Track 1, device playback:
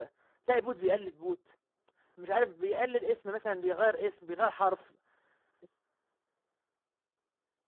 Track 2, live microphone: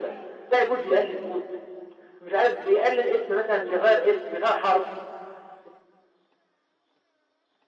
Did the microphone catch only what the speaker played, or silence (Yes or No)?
Yes